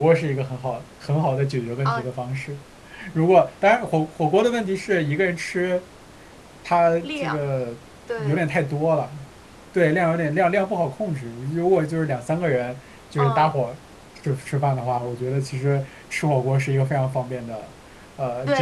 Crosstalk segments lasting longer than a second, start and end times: none

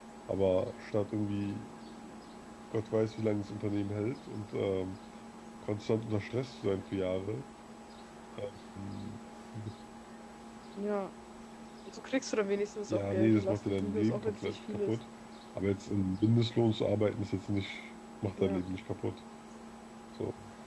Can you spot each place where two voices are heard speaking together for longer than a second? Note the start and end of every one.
12.9-14.9

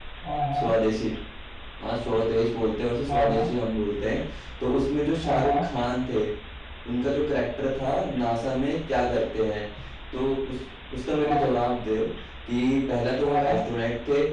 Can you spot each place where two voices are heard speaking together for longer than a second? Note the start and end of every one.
none

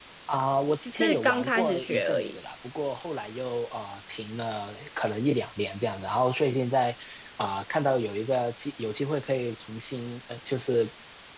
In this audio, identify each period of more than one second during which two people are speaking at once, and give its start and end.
0.9-2.4

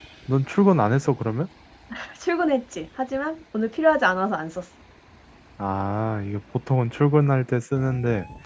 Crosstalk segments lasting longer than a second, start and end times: none

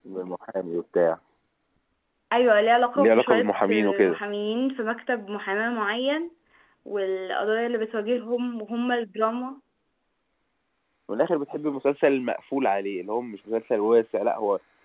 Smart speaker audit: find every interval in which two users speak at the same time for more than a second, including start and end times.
3.0-4.2

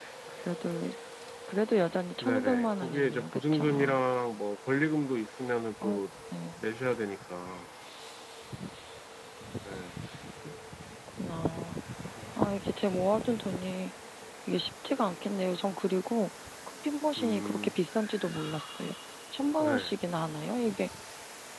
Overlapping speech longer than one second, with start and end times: 2.2-4.0

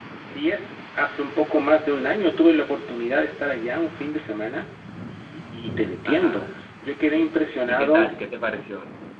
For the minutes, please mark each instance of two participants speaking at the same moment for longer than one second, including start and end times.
none

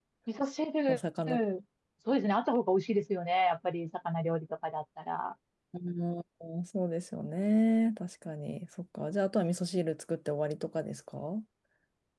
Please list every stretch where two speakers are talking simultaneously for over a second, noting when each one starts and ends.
none

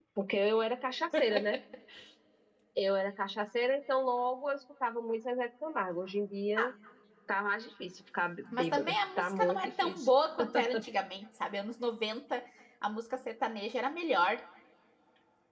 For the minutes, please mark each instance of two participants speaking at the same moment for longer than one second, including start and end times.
8.5-10.1

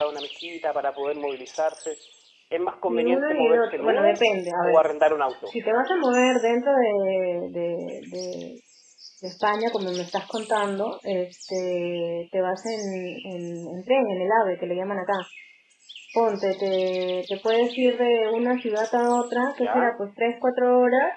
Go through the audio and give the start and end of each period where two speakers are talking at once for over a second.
2.9-4.2

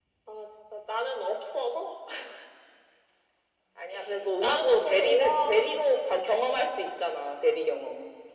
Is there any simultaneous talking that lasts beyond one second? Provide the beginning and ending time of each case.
4.4-5.7

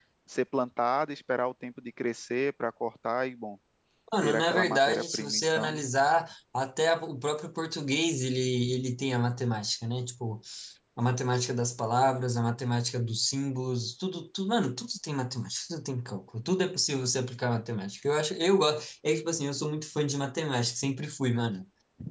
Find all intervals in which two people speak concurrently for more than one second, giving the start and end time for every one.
4.2-5.8

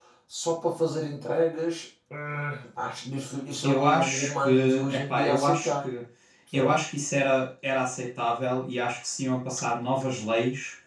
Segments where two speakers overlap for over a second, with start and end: 3.6-5.8

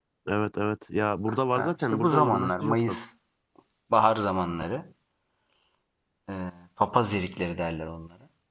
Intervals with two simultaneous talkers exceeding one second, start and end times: 1.5-3.0

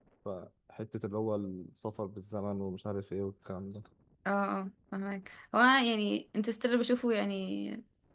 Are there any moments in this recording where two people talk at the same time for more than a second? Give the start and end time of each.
none

